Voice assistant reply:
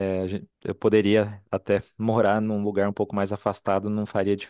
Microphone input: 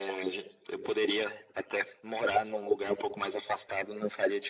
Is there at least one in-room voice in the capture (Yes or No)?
No